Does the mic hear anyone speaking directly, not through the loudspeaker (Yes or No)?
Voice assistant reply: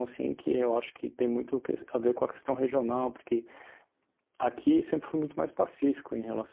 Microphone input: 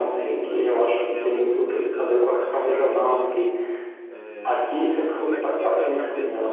Yes